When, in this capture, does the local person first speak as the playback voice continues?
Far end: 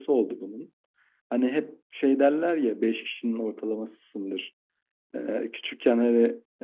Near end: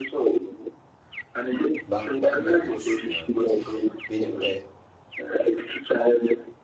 1.9 s

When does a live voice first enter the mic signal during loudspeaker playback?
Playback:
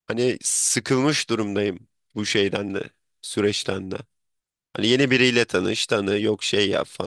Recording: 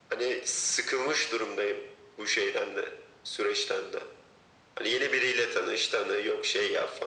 none

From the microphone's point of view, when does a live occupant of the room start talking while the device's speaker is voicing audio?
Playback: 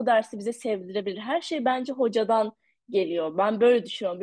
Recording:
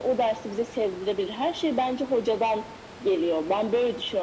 none

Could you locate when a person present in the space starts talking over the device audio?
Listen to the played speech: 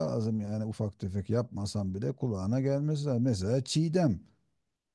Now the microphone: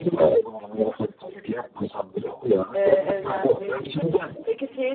2.7 s

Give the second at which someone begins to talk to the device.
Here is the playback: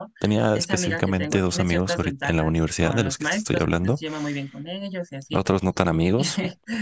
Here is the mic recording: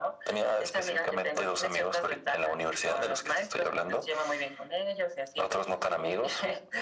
none

